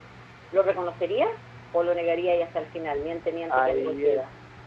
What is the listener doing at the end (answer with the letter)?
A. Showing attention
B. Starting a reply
B